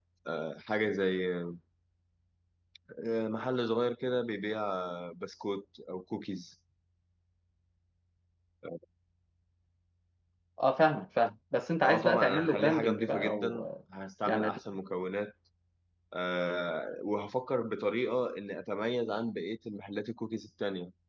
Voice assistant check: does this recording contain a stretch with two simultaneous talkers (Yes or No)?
Yes